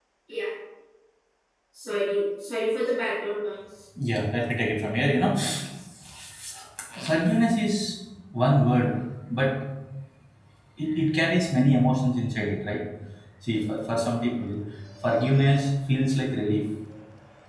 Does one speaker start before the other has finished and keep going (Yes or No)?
No